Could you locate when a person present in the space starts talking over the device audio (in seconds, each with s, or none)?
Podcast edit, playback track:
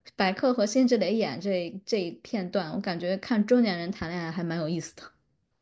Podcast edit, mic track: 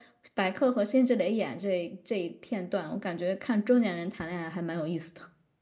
none